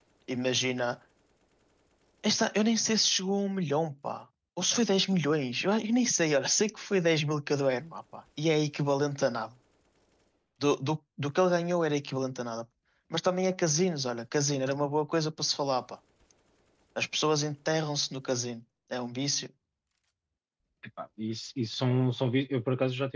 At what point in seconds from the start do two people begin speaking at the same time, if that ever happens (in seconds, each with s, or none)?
none